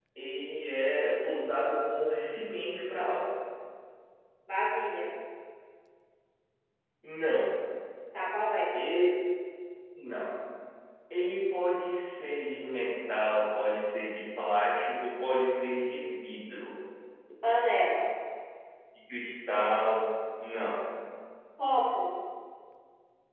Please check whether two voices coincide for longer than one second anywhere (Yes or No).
No